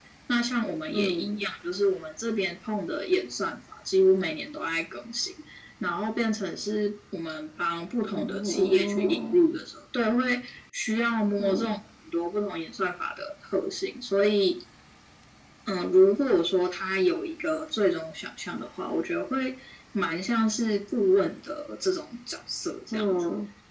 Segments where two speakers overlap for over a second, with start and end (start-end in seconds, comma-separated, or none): 8.1-9.4